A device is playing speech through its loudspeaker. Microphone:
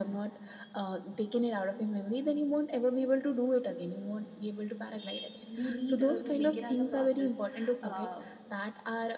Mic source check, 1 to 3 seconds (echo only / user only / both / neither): echo only